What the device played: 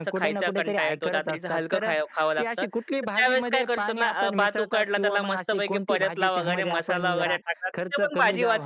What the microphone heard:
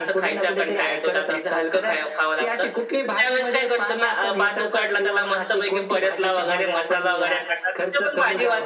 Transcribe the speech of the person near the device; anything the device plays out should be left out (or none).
none